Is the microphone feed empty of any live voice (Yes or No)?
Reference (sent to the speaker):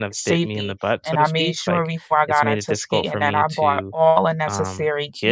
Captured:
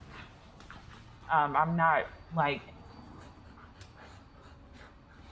No